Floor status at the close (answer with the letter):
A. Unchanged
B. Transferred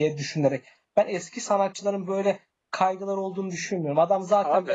A